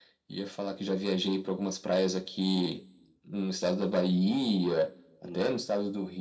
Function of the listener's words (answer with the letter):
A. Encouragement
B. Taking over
A